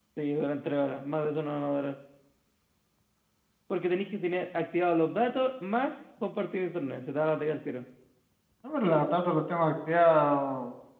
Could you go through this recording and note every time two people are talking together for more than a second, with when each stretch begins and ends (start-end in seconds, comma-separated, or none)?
none